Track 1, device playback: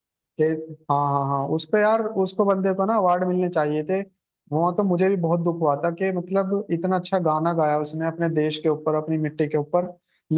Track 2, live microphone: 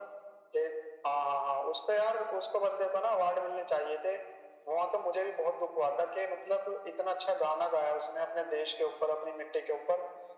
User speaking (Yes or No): No